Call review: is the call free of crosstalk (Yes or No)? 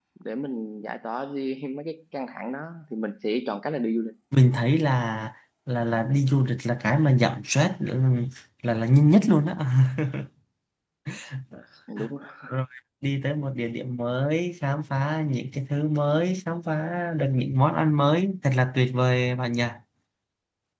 Yes